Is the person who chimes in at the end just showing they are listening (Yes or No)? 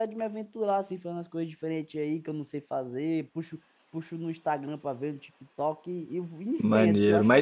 No